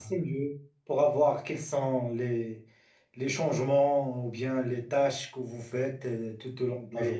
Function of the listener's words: taking over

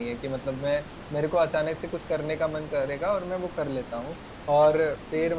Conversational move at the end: listening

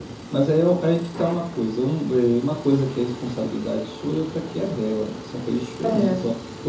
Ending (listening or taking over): listening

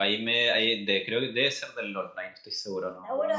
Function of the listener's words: taking over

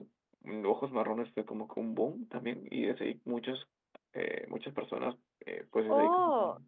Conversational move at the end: taking over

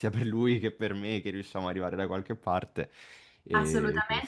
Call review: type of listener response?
taking over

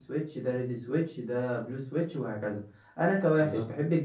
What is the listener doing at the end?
listening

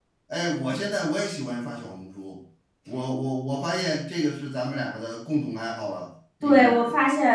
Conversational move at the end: taking over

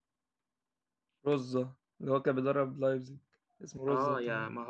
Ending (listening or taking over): taking over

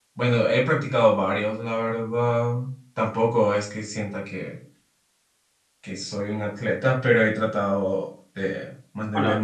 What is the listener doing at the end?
listening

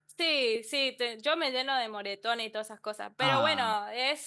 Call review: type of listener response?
listening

